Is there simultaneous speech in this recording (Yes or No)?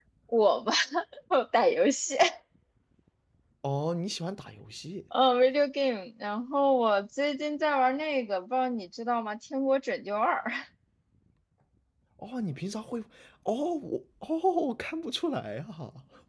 No